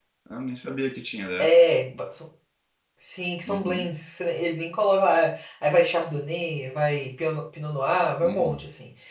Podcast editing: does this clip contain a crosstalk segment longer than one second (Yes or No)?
No